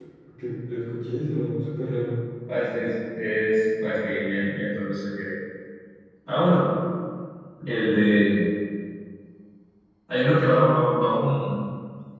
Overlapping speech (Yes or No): No